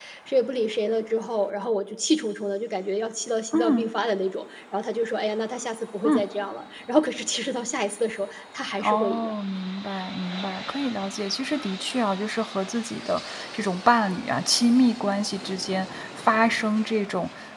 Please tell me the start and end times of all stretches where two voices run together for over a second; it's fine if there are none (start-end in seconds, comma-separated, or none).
none